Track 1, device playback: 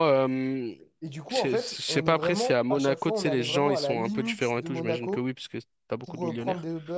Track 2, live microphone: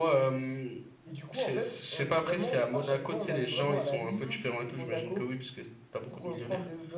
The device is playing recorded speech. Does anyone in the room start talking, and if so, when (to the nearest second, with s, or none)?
none